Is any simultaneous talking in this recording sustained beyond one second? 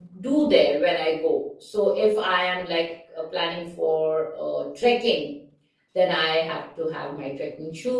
No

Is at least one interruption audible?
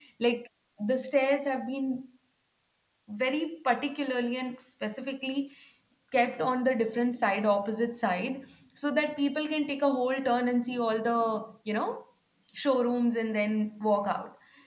No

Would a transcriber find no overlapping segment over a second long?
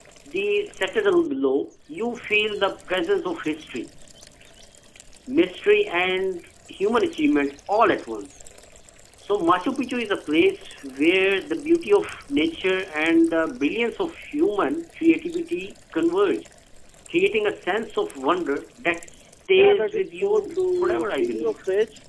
No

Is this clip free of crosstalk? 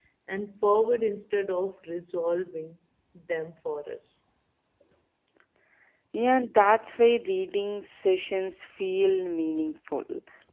Yes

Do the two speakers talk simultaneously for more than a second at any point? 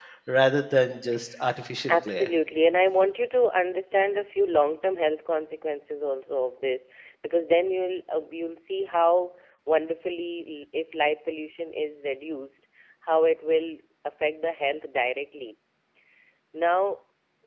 No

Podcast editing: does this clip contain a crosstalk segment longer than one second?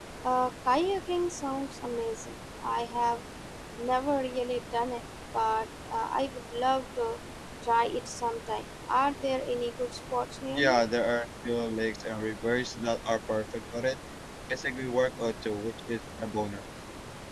No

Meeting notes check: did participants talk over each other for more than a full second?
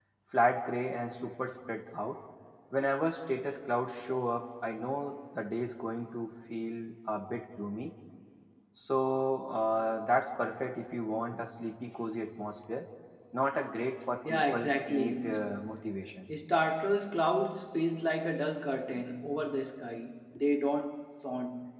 Yes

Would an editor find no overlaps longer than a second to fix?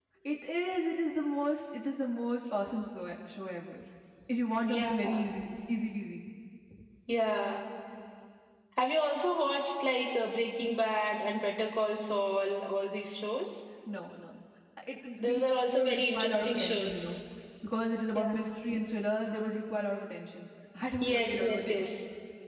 No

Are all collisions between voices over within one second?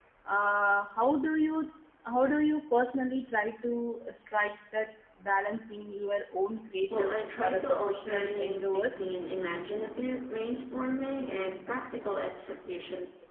No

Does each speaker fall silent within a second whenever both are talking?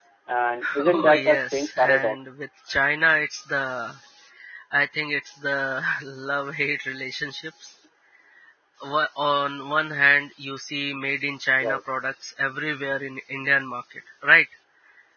No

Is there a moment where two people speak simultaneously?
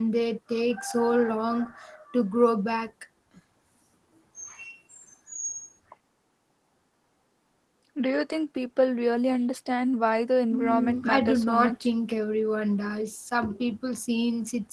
Yes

